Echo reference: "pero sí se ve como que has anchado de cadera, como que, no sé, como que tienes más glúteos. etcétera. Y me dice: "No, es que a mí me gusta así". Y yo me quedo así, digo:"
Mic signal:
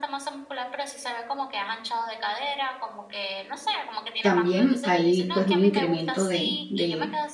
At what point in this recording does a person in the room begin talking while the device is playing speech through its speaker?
4.2 s

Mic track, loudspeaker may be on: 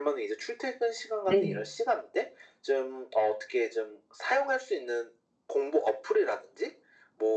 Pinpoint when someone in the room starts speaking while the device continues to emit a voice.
1.2 s

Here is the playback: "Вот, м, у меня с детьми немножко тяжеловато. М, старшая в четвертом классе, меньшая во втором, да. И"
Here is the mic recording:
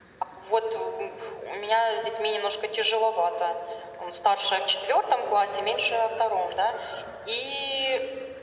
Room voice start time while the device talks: none

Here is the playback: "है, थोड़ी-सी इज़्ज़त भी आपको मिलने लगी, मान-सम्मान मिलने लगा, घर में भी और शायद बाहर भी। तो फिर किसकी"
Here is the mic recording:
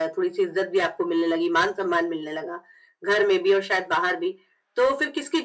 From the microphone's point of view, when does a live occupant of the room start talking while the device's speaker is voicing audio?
none

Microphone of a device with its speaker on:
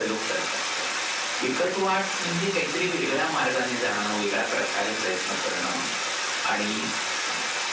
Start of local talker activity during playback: none

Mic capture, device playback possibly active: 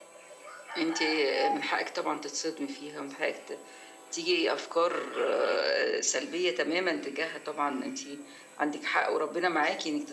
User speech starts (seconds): none

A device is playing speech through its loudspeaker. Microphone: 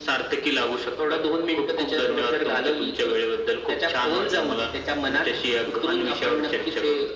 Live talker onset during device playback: none

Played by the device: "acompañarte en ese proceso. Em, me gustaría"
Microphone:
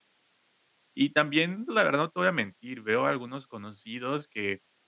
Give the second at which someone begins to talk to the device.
1.0 s

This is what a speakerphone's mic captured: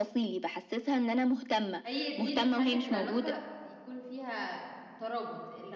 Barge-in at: 1.9 s

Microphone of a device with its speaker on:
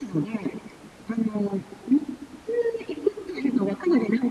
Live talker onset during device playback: none

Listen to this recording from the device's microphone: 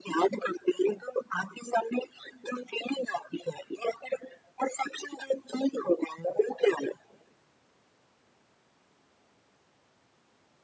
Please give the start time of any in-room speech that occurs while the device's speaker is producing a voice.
none

